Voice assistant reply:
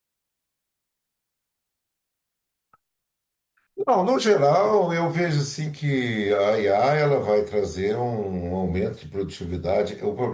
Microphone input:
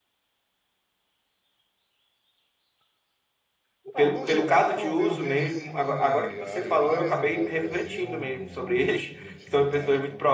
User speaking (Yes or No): Yes